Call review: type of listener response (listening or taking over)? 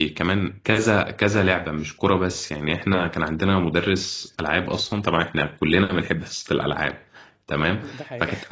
listening